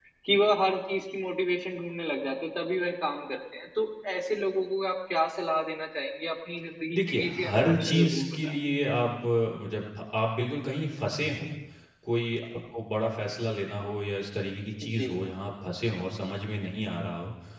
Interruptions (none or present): present